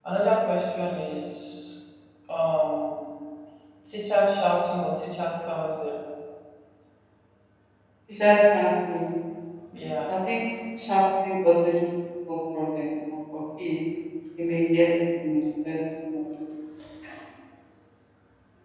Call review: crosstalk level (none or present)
none